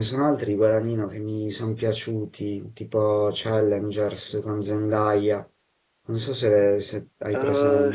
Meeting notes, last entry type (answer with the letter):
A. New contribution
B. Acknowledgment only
A